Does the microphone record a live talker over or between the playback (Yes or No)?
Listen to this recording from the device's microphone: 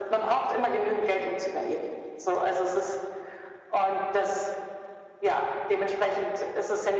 No